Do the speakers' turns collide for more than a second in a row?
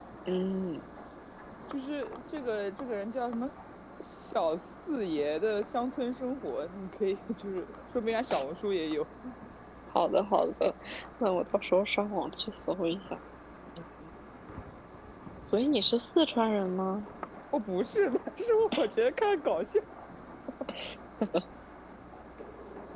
No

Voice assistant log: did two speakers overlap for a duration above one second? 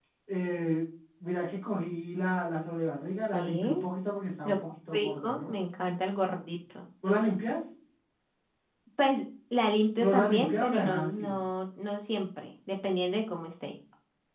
Yes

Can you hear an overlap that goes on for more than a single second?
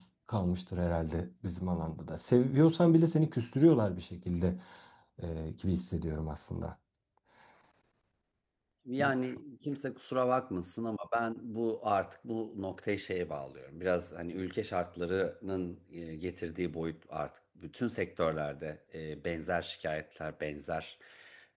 No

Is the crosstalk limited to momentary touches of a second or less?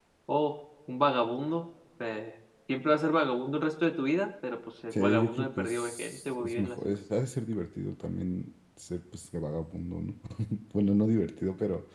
No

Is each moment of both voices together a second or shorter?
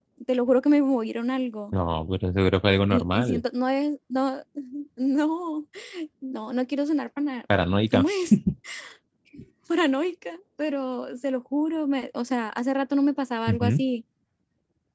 Yes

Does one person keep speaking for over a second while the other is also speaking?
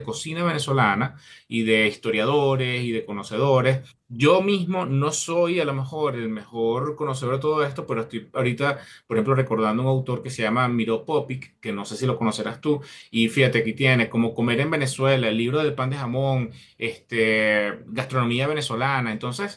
No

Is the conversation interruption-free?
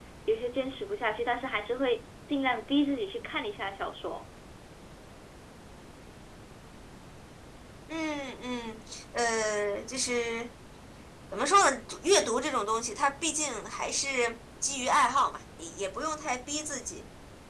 Yes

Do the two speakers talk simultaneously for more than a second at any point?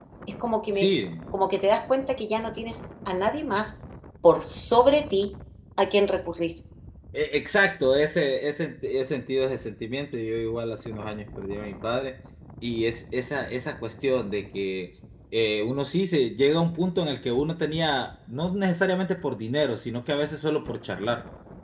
No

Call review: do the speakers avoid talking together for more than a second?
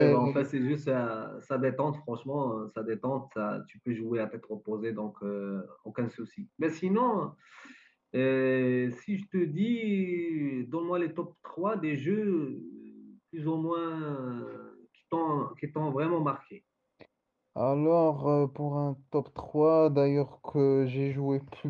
Yes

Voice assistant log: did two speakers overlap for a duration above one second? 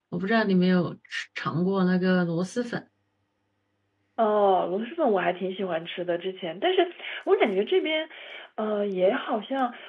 No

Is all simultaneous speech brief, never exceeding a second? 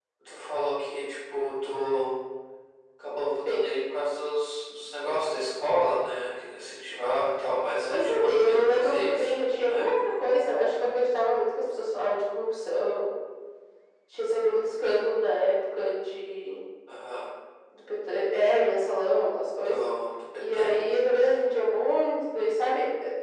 No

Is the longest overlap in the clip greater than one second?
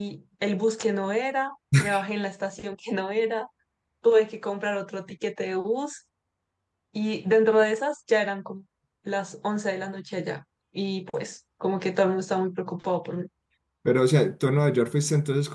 No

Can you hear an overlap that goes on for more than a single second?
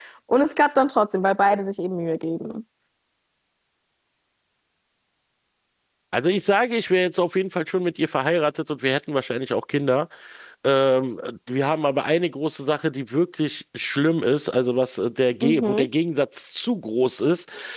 No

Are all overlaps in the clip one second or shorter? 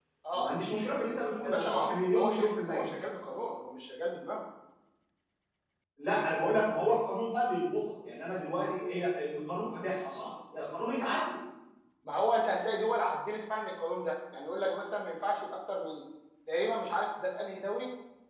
No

